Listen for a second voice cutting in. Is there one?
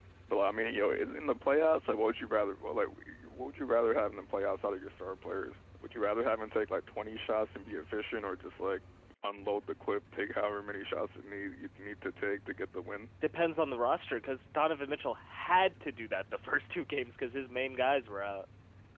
No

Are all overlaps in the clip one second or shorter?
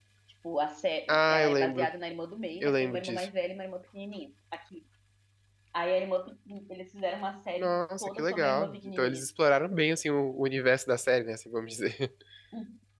No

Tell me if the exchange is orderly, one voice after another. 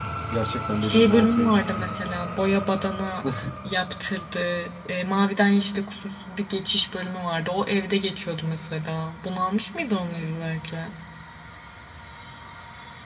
No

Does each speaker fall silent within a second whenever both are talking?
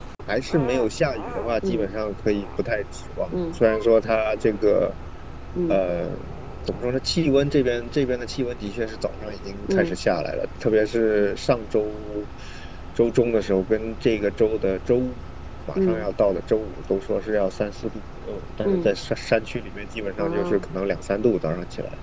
Yes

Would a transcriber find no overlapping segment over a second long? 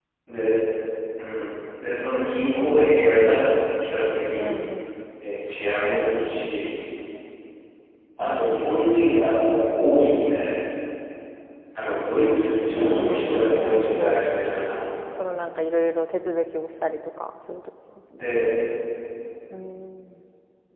No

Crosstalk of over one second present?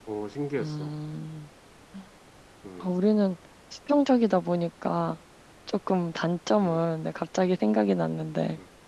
No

